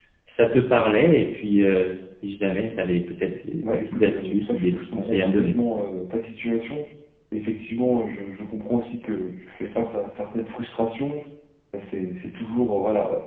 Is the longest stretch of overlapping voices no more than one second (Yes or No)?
No